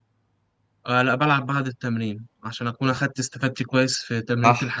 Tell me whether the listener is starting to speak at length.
Yes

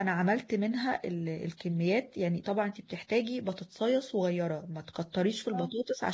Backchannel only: Yes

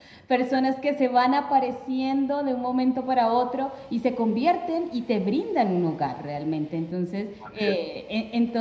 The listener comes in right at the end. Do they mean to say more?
No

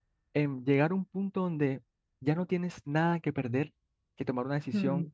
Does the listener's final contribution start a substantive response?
No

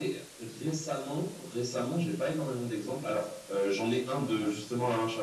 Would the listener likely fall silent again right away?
Yes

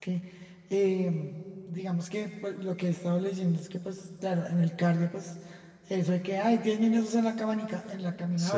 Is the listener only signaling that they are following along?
Yes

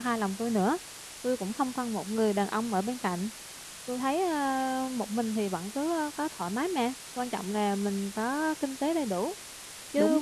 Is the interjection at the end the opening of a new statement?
Yes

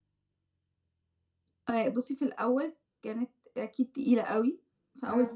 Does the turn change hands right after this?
No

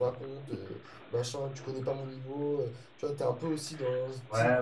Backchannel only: No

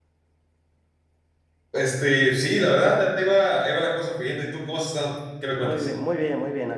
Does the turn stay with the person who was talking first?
No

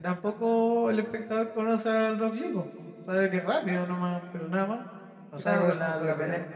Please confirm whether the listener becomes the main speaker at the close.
Yes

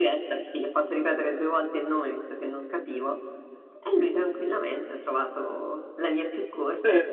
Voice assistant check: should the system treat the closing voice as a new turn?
Yes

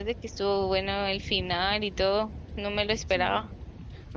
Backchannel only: No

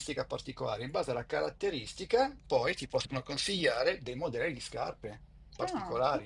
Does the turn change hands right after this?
Yes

